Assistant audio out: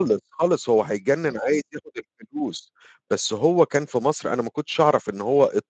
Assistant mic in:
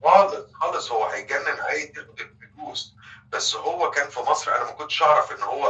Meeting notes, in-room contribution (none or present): none